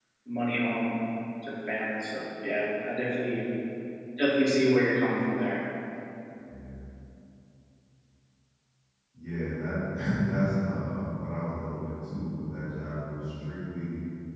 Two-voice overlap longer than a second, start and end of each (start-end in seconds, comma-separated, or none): none